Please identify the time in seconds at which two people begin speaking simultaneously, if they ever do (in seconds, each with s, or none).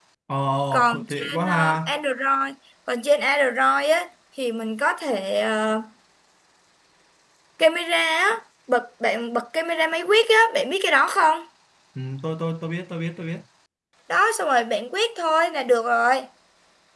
0.7 s